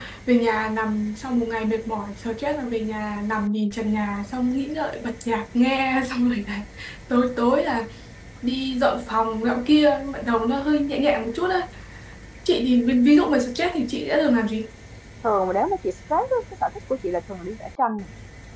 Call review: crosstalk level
none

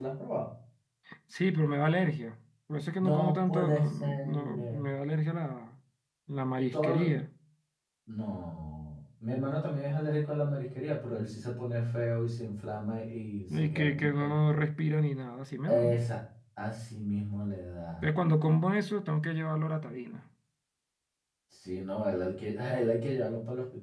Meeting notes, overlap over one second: present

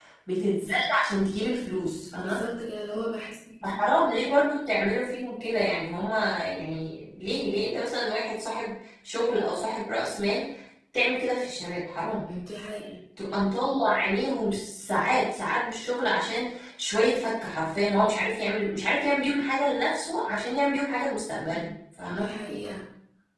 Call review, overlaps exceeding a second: none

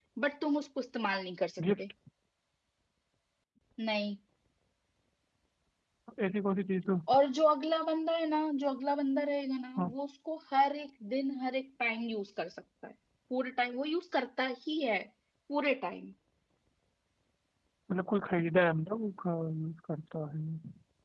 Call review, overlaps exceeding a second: none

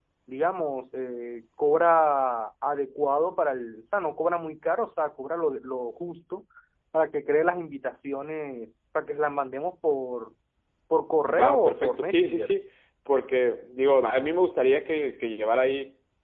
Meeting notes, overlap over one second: present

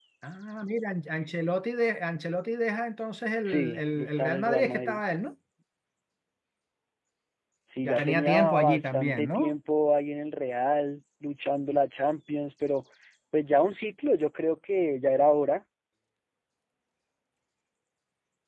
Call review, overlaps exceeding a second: present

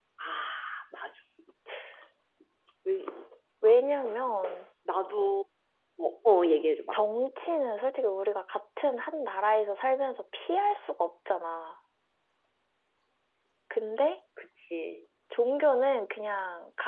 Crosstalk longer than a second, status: none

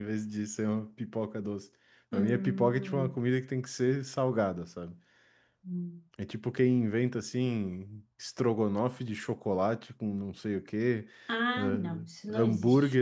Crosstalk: present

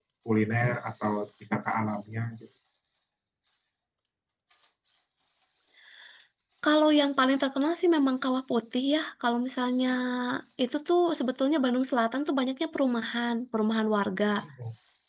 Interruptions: none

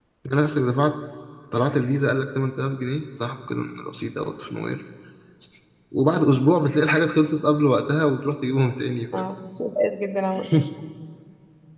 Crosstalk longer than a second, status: none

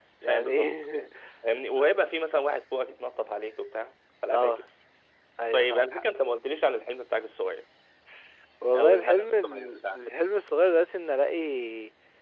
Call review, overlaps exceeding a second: present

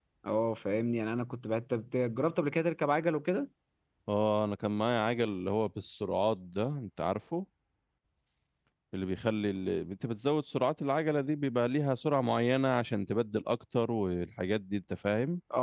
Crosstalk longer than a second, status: none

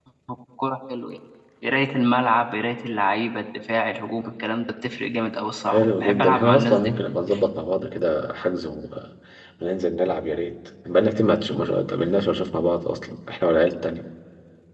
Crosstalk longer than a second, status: present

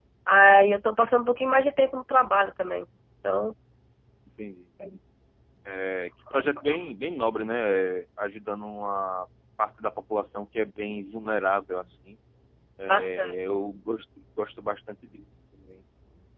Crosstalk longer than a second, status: none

